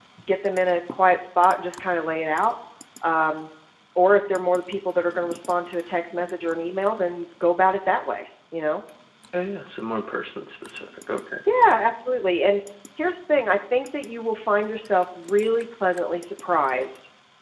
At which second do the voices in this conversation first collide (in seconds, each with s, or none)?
none